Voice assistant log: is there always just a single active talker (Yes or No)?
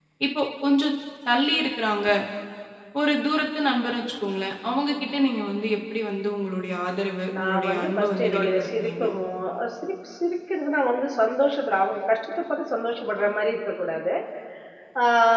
No